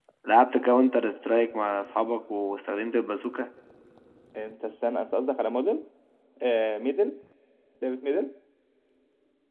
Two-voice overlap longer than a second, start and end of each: none

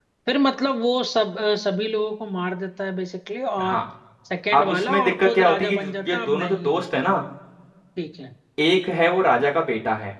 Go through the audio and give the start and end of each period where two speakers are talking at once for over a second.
4.5-6.9

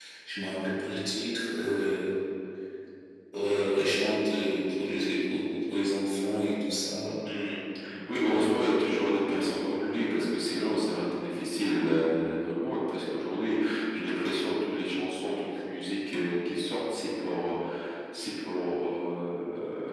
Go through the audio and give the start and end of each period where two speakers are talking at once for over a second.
none

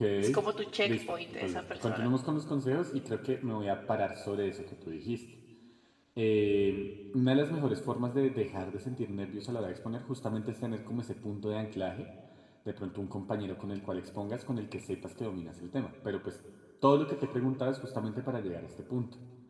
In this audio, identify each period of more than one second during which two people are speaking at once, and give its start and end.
0.8-2.1

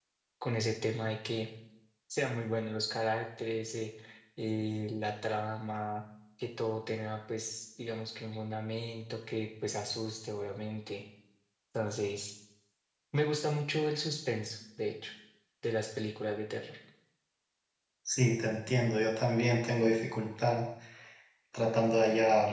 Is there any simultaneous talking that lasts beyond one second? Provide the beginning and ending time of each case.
none

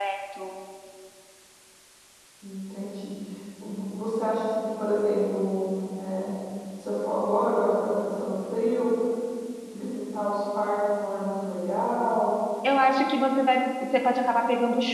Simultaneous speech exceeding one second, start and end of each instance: none

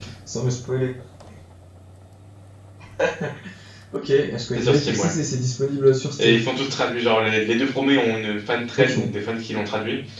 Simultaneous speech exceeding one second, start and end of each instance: none

